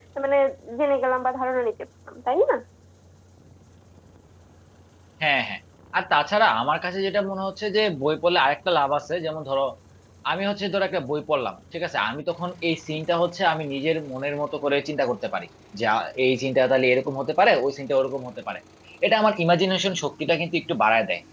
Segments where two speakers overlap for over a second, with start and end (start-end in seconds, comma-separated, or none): none